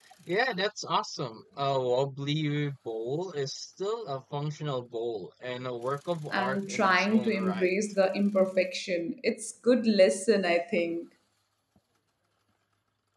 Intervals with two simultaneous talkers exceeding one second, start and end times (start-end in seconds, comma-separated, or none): 6.3-7.7